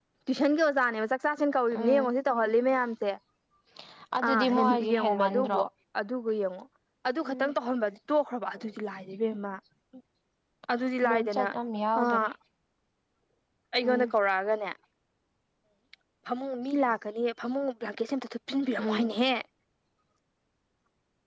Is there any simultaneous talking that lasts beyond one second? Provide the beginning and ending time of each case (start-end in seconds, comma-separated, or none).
4.3-5.6